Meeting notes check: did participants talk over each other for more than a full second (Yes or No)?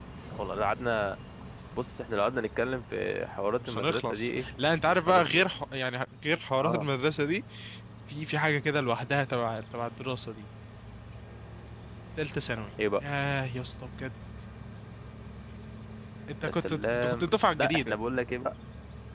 Yes